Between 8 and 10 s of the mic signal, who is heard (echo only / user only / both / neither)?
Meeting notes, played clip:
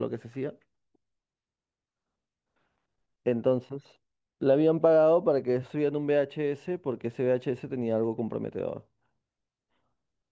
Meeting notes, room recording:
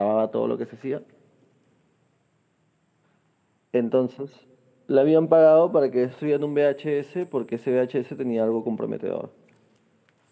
echo only